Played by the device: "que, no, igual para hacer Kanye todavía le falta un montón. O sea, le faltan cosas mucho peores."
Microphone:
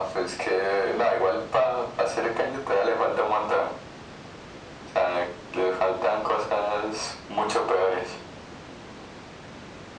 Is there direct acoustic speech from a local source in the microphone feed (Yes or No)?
No